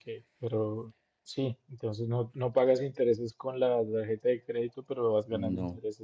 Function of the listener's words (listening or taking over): listening